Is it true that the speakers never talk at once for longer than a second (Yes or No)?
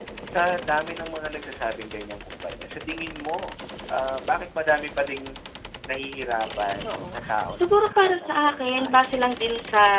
No